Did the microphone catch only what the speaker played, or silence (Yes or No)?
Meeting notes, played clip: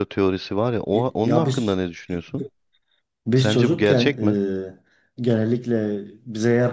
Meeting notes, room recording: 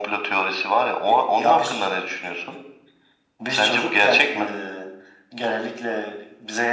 Yes